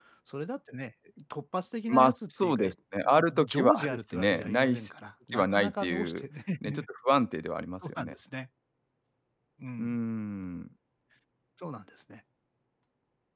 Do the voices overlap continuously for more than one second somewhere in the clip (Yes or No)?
Yes